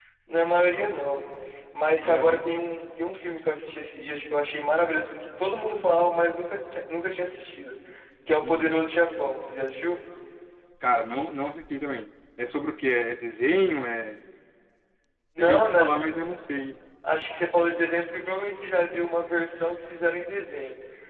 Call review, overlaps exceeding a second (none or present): none